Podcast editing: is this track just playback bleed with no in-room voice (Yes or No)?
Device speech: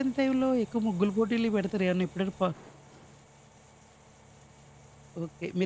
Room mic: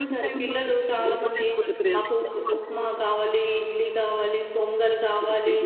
No